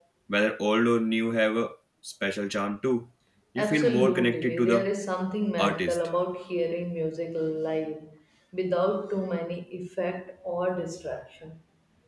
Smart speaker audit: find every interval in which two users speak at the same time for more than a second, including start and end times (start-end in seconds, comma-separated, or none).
3.6-4.9